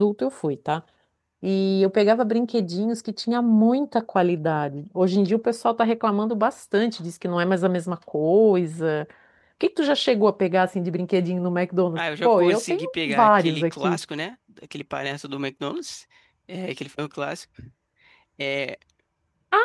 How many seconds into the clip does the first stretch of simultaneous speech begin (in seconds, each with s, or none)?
12.0 s